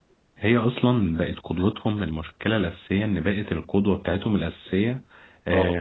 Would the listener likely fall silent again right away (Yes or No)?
Yes